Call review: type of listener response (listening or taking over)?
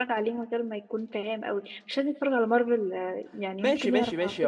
taking over